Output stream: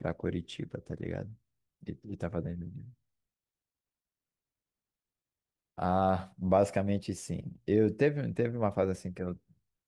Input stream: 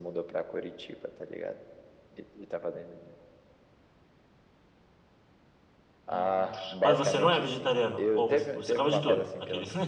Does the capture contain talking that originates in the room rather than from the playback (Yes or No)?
Yes